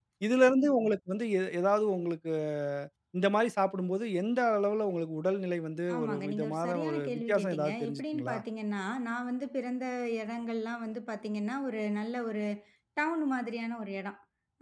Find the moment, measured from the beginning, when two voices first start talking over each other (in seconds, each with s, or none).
5.9 s